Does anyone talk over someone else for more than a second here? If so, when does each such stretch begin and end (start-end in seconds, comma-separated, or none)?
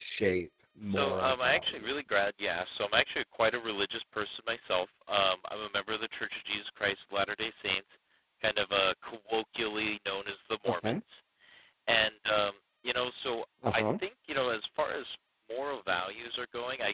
0.8-2.2